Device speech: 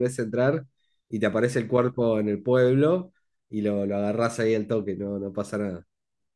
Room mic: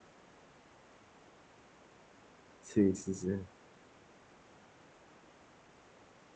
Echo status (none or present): none